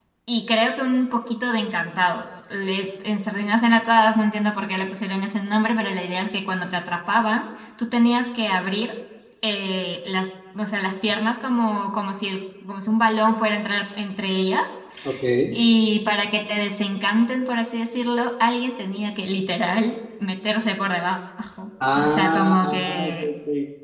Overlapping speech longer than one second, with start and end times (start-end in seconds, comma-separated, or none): 21.9-23.3